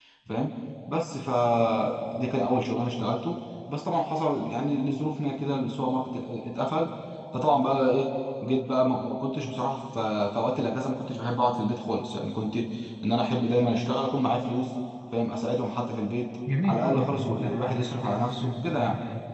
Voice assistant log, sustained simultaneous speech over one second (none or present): present